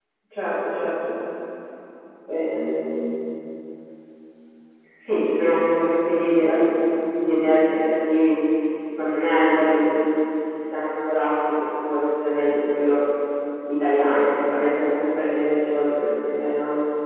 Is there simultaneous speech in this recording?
No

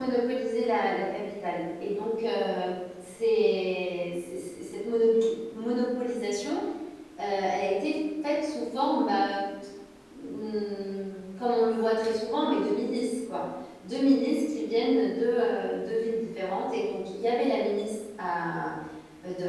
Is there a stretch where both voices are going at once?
No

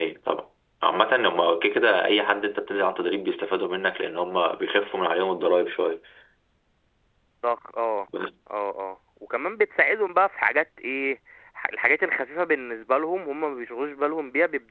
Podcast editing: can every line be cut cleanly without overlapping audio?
Yes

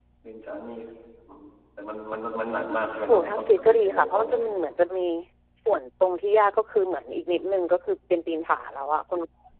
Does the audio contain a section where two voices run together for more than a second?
Yes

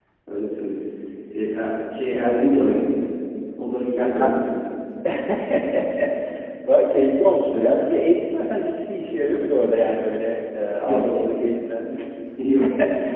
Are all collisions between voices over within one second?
Yes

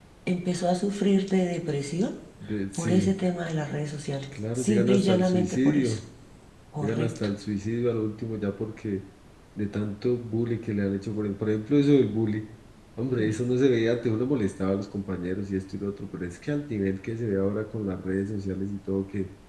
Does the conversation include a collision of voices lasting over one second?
Yes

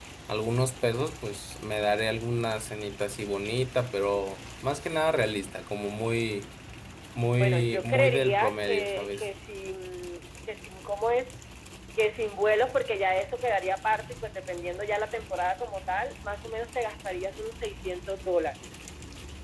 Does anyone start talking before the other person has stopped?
Yes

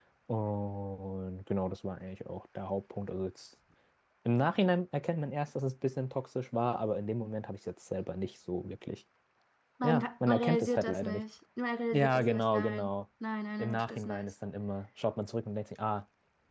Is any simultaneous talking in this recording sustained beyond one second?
Yes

